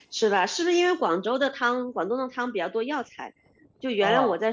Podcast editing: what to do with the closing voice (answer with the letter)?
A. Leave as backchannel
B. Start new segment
A